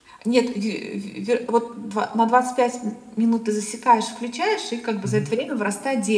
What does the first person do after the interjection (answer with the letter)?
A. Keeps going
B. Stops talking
A